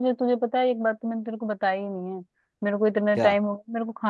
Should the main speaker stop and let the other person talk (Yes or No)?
No